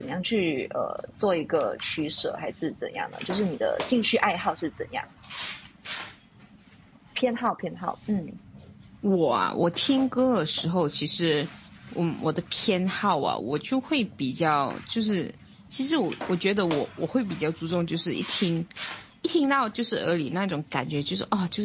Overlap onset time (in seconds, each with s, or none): none